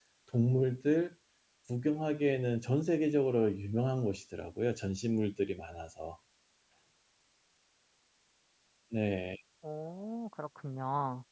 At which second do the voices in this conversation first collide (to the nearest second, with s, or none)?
none